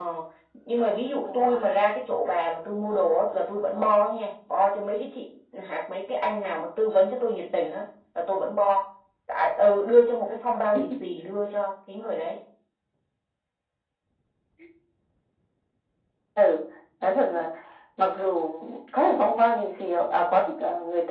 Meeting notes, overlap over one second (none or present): none